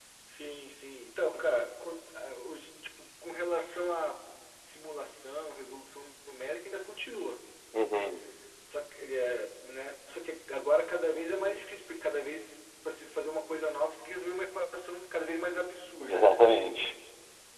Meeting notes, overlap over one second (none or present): none